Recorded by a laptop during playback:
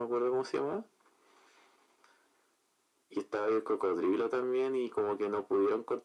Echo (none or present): present